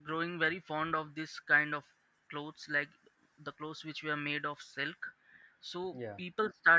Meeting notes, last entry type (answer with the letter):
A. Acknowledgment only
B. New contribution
A